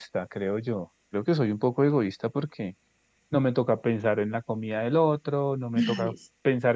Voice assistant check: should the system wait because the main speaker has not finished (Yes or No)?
Yes